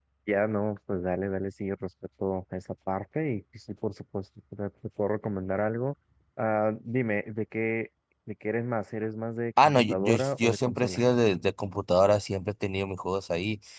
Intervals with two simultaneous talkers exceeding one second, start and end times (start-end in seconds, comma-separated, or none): 9.6-11.0